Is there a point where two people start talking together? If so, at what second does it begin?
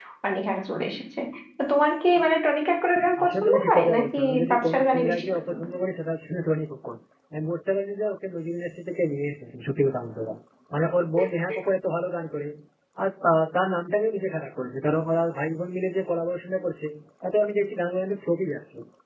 3.2 s

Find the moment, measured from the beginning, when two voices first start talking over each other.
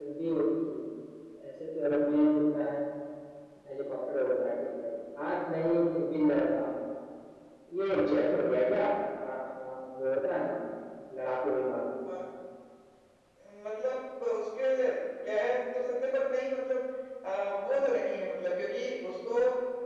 none

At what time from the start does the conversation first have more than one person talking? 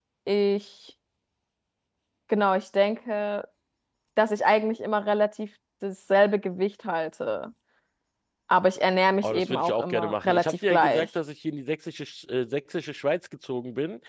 9.2 s

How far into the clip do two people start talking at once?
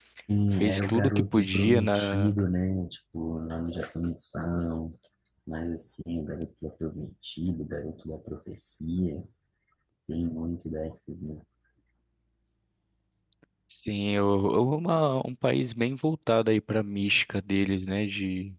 0.5 s

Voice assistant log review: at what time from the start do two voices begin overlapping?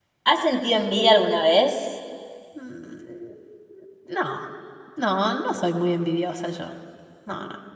none

